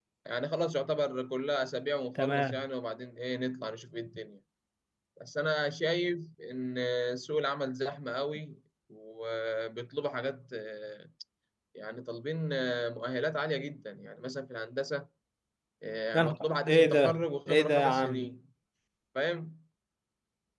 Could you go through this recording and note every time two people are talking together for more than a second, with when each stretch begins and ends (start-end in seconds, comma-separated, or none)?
16.1-18.3